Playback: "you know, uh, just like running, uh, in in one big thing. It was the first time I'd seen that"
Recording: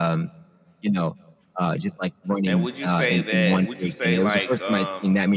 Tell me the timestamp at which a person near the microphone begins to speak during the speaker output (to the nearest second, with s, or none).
2 s